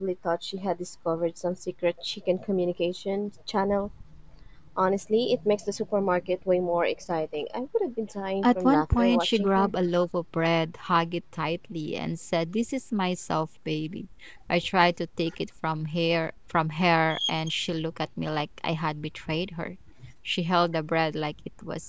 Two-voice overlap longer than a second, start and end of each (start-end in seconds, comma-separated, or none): 8.4-9.7